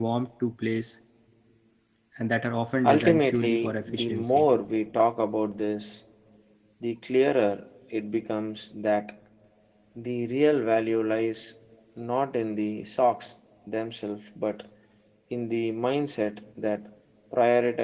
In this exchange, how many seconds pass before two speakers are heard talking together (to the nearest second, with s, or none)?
3 s